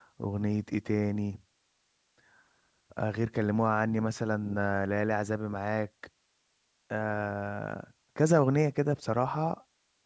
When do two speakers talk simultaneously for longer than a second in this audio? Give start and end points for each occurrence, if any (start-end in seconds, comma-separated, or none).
none